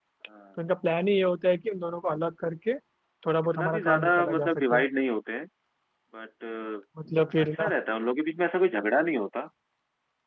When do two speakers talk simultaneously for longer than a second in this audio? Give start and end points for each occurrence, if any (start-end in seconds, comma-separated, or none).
3.5-4.8